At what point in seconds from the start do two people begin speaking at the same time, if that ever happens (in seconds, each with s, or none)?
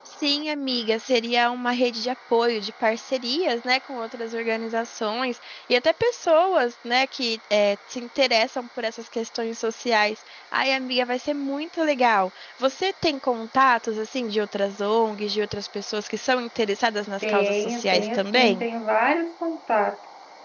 17.2 s